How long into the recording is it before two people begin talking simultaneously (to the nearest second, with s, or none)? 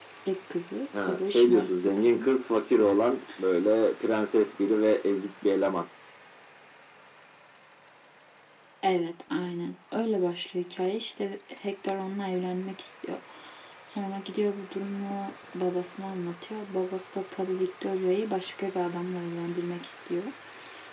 1 s